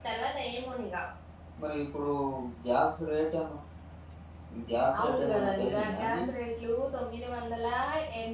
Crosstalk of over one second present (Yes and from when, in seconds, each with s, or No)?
Yes, from 5.0 s